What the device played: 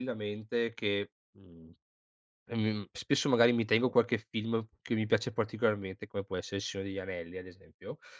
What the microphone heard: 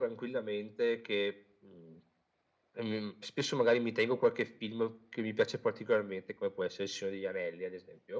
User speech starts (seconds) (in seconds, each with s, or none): none